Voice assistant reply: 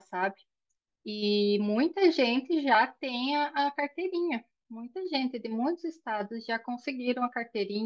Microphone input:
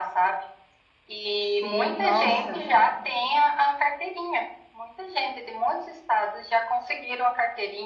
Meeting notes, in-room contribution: present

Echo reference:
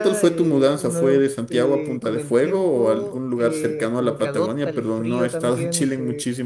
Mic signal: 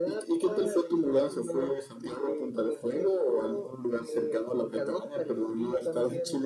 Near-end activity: none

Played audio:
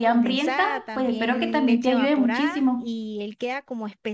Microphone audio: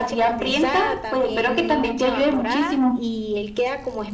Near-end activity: none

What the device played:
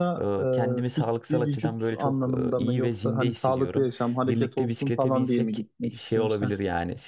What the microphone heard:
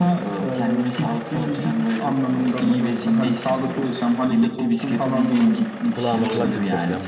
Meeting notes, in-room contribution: present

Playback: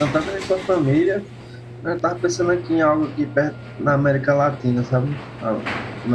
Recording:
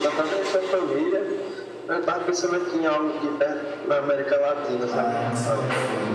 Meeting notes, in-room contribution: present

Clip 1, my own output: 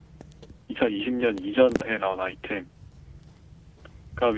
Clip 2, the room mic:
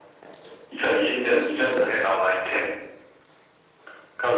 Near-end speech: none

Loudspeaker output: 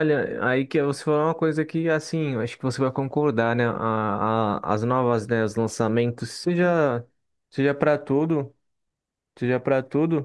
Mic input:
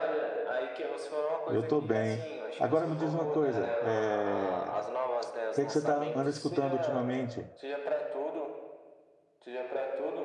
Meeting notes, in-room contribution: present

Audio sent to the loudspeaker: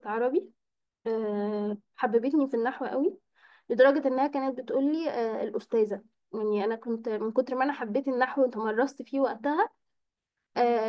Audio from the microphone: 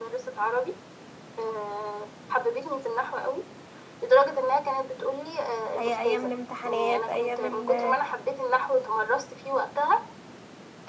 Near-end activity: present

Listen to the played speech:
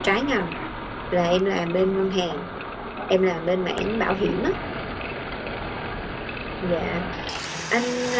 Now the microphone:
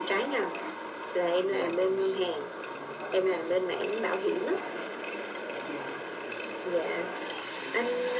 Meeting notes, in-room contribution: present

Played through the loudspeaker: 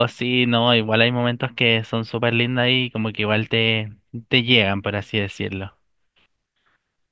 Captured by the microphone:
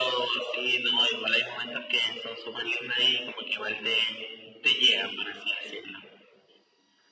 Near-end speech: none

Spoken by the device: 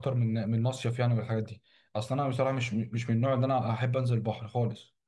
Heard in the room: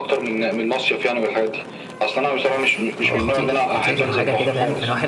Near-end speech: present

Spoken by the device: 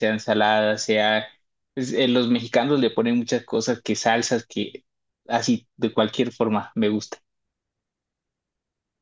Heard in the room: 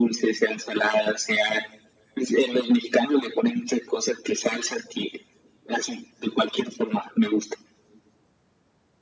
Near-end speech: none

